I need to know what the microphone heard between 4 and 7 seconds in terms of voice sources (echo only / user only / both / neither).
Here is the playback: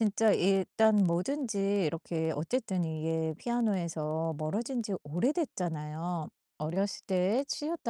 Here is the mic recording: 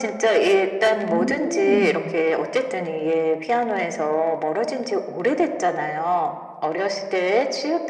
echo only